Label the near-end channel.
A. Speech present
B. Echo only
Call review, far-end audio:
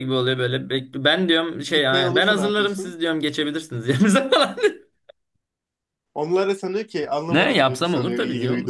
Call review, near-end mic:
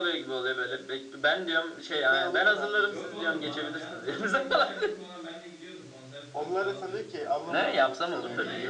A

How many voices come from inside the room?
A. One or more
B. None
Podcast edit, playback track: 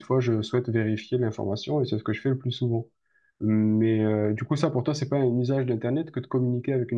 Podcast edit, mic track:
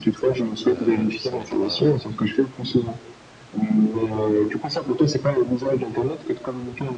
A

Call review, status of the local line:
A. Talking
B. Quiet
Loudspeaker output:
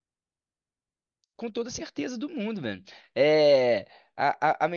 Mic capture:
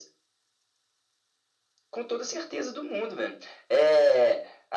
B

